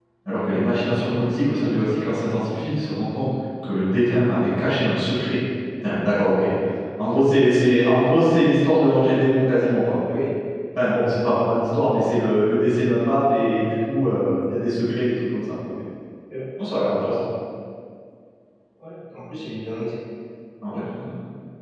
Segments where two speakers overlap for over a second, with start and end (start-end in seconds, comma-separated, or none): none